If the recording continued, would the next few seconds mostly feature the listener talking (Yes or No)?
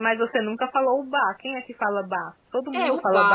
Yes